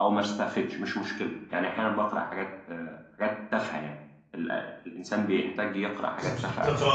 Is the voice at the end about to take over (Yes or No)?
Yes